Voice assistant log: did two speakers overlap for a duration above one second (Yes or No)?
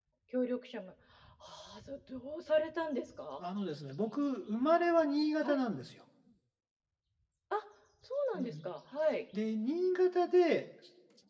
No